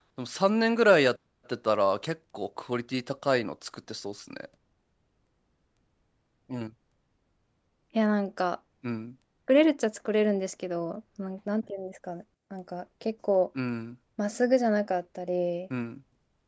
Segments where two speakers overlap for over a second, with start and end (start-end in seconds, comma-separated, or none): none